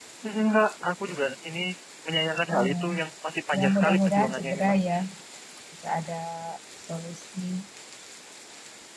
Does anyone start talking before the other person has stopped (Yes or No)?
Yes